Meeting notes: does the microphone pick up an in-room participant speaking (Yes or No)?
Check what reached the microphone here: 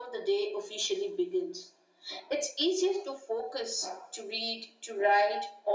No